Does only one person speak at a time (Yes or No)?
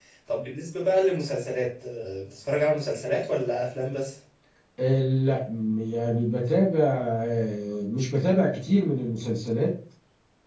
Yes